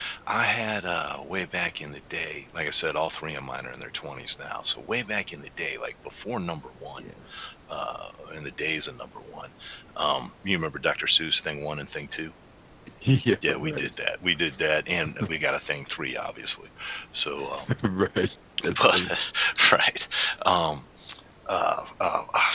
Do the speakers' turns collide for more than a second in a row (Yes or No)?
No